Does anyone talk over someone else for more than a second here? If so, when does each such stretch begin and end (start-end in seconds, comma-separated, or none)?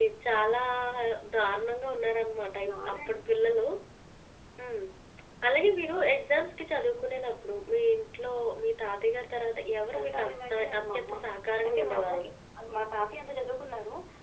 9.9-11.1